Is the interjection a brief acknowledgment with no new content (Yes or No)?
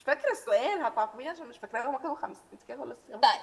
No